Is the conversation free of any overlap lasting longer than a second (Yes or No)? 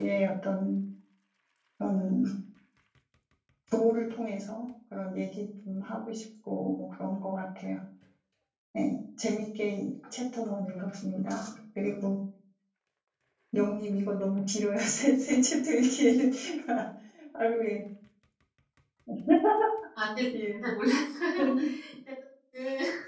Yes